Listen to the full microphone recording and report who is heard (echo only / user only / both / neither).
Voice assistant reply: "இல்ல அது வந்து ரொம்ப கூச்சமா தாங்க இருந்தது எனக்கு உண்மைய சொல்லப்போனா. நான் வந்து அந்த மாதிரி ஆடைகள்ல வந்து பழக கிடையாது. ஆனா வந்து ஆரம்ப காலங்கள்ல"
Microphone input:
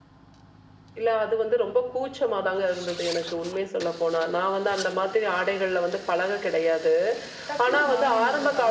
both